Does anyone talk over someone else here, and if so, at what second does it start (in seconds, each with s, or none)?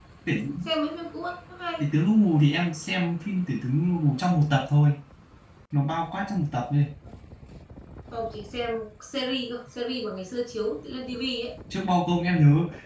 none